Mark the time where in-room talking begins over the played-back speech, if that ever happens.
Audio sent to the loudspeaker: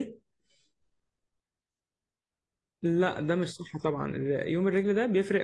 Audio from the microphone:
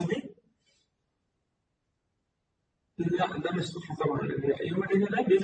none

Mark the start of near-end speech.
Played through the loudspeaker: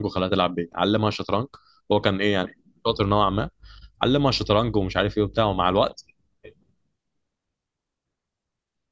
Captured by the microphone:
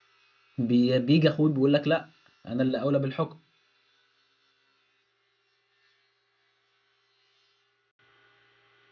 1 s

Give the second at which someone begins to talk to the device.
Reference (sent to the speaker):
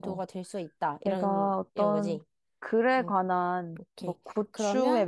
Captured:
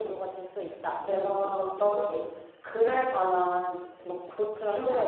none

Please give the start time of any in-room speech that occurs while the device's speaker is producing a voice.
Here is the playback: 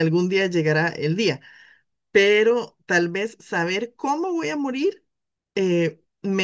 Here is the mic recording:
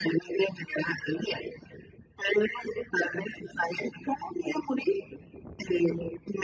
none

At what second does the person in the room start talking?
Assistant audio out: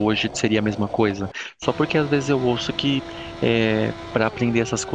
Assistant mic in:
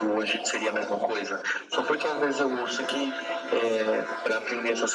none

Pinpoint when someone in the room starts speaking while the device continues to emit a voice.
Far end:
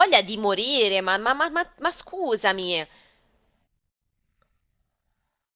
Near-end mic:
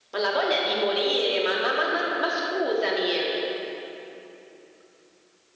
none

